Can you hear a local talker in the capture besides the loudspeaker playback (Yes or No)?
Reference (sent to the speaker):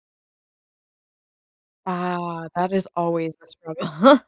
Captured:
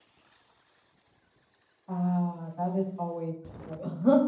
No